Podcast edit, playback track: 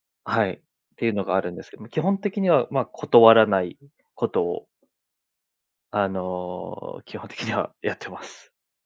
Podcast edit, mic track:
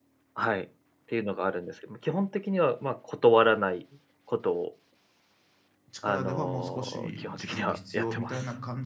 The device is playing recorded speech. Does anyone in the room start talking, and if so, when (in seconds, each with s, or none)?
5.9 s